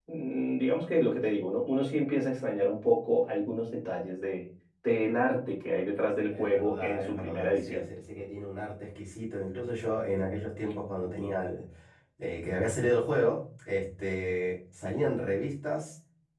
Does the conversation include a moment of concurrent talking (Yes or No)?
Yes